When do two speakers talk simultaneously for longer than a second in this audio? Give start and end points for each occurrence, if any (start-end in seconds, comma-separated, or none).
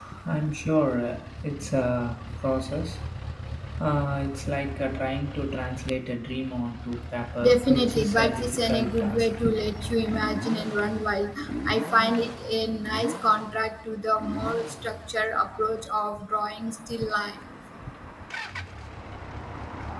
7.4-9.3